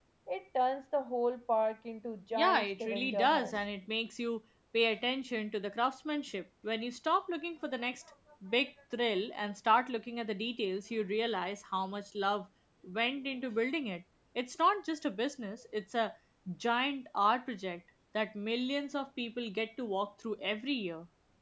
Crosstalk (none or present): present